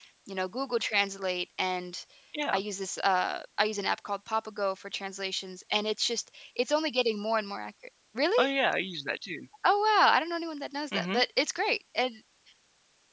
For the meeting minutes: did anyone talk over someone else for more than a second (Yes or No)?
No